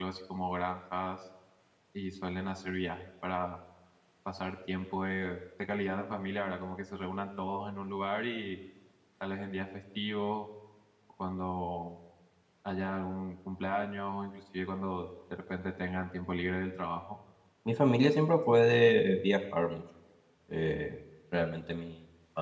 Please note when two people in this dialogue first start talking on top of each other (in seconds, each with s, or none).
none